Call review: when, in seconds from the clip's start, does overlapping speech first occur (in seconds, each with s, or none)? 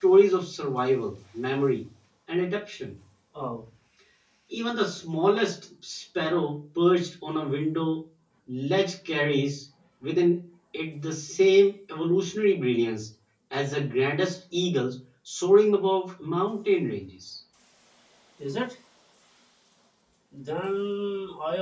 none